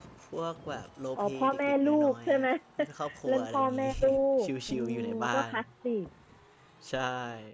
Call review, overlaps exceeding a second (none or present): present